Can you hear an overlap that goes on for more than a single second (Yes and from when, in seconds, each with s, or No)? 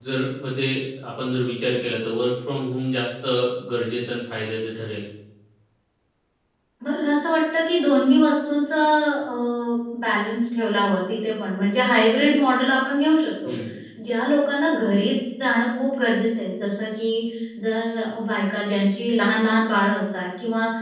No